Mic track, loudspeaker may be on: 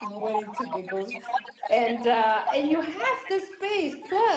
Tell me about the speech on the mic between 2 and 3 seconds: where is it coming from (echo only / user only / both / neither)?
both